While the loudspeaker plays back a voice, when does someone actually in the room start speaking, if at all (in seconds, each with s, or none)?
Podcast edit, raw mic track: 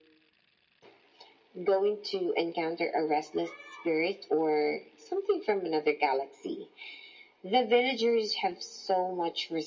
none